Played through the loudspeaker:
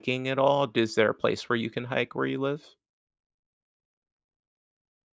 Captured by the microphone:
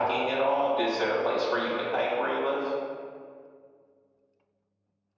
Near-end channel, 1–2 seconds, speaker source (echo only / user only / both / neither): echo only